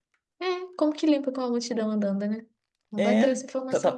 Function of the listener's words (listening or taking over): taking over